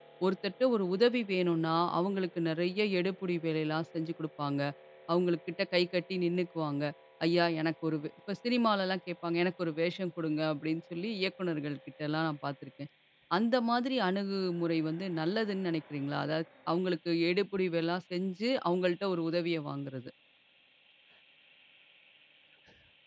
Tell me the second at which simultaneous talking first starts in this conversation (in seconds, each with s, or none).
none